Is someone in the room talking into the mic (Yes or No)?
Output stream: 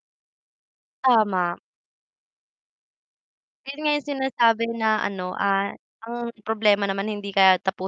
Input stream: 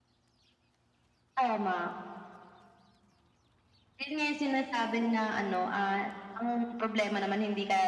No